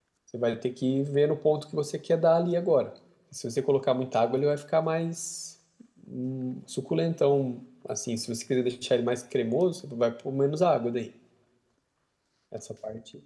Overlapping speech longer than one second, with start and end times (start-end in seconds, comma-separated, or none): none